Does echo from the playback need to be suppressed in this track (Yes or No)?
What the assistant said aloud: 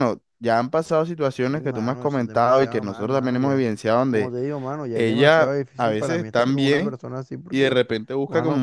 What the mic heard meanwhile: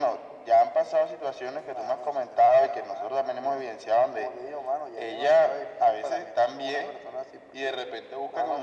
Yes